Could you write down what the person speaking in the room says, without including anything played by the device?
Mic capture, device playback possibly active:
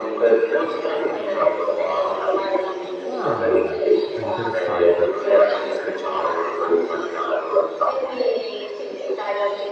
Ah, interessante.

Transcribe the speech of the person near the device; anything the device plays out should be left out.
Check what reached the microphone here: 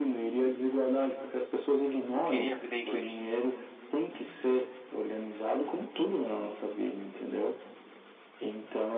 Eu queria aprender inglês.

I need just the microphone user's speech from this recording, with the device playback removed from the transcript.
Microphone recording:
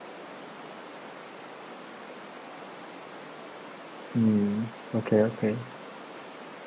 嗯，OK OK，

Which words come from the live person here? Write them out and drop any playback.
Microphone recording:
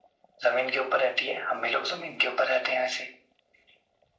none

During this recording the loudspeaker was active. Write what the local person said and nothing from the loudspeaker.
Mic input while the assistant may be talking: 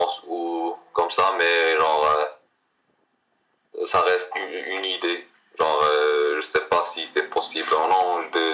none

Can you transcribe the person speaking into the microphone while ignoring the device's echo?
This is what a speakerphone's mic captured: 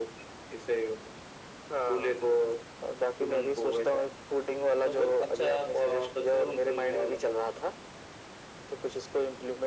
none

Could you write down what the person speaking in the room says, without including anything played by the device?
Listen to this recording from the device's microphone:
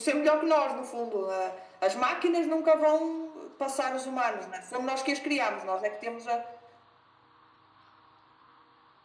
none

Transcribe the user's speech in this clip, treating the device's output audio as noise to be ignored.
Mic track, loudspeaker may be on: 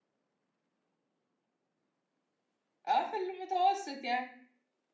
اه في المتوسط يعني

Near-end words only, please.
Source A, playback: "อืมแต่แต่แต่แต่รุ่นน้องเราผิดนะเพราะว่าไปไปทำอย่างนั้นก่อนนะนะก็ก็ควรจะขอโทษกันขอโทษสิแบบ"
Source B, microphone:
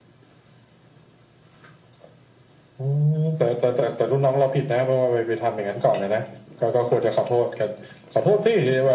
none

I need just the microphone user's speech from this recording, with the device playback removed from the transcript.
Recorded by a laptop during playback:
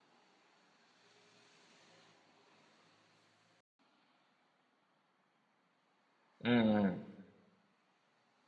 うん、うん。

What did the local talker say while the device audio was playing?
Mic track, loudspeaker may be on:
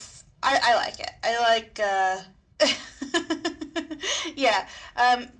none

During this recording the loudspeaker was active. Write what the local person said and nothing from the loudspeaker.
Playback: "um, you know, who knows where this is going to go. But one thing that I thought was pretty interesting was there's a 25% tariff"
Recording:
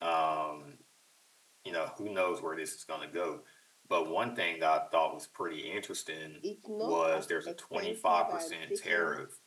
it's not as expensive and taking

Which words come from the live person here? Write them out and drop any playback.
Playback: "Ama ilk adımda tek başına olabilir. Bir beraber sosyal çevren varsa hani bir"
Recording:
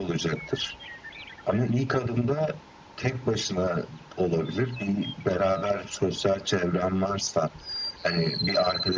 none

